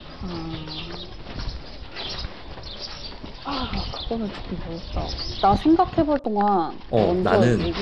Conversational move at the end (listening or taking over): taking over